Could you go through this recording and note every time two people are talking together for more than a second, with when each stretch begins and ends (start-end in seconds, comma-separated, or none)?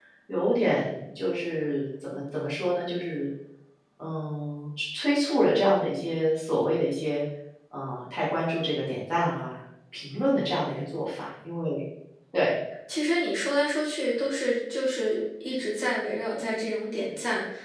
none